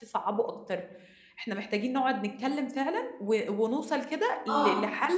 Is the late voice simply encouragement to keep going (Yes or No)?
Yes